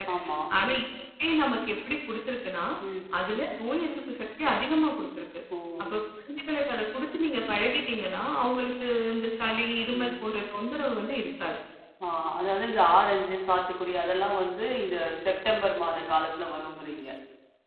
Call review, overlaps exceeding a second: none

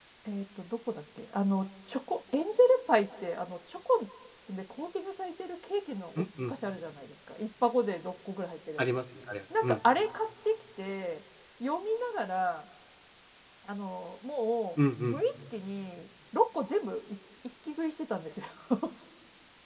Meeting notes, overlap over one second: none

